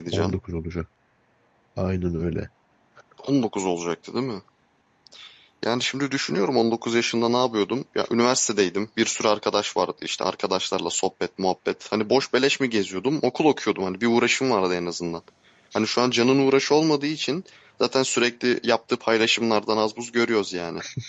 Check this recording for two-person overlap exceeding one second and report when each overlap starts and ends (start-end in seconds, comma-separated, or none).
none